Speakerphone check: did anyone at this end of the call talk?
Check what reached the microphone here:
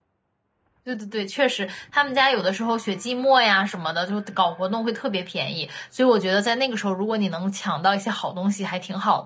Yes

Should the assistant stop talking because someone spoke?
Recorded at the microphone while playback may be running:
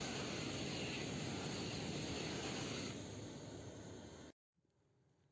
No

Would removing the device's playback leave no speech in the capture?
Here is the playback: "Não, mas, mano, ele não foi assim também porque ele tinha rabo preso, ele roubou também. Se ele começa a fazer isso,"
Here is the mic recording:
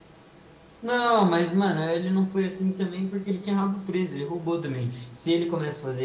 Yes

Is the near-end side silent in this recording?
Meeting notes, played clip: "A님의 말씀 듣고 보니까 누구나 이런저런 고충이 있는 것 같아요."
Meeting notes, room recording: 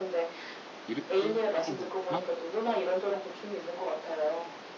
No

